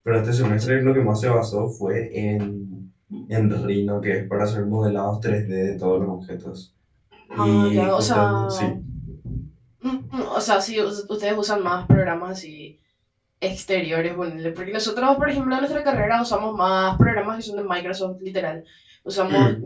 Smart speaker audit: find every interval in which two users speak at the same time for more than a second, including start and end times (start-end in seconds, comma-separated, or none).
7.4-8.7